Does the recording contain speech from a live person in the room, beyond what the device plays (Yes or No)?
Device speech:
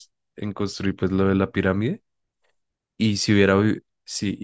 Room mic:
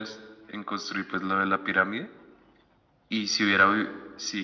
No